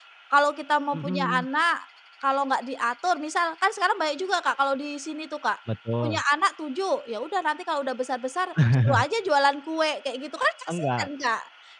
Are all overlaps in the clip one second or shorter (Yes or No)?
Yes